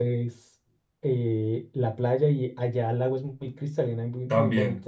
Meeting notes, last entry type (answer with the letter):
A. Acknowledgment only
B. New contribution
B